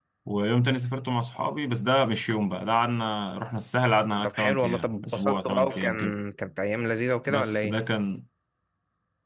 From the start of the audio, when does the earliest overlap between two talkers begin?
4.2 s

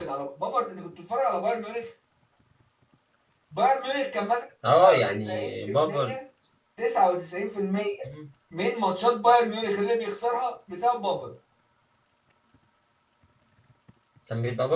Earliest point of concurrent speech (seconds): 4.6 s

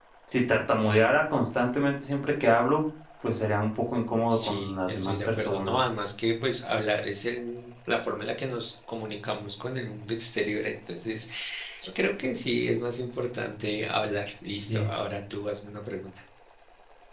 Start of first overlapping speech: 4.3 s

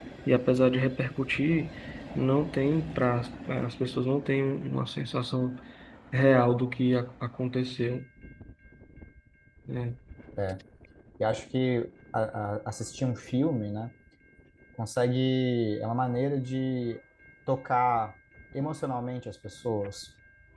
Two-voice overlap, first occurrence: none

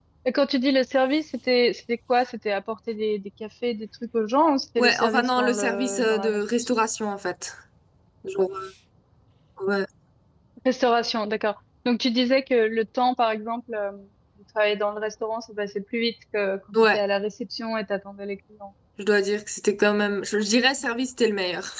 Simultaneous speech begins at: 4.8 s

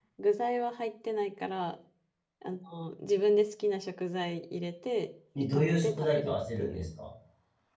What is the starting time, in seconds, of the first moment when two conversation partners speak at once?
5.3 s

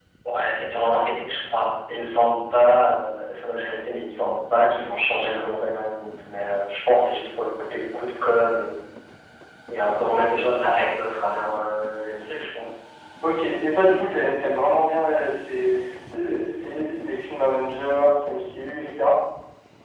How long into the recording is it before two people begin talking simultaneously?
none

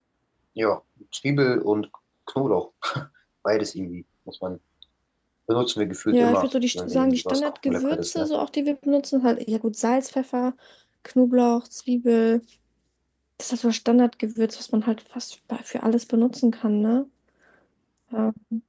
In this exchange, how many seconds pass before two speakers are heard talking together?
6.1 s

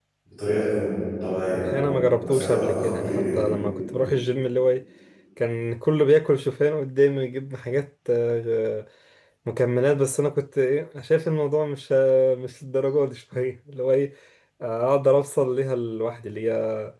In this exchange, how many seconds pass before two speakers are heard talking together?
1.5 s

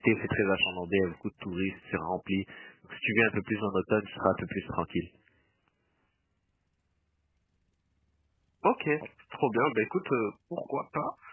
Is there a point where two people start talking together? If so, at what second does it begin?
none

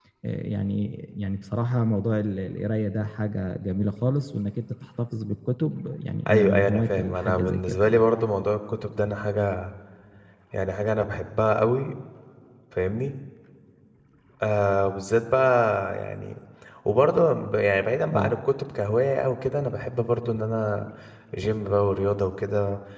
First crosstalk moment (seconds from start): 6.3 s

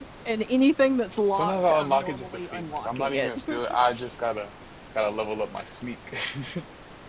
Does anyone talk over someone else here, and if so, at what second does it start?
1.3 s

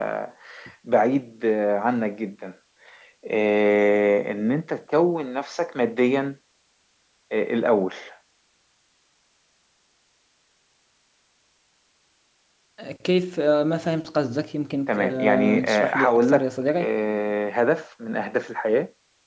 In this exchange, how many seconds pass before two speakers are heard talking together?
14.9 s

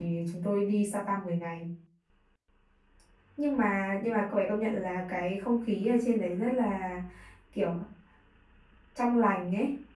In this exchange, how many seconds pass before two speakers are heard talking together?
none

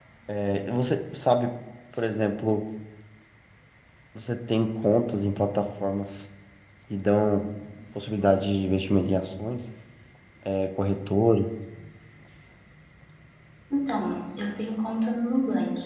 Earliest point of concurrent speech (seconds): none

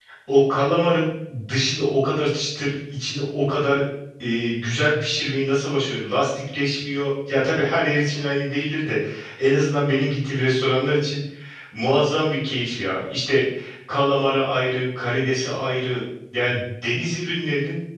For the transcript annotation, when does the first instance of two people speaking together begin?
none

